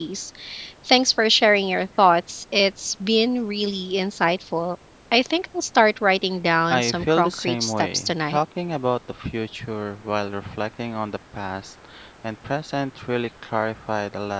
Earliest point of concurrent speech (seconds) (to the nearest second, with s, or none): 7 s